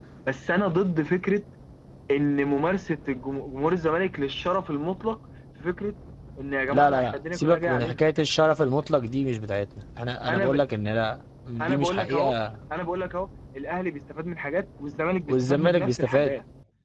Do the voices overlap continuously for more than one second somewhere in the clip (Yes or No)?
Yes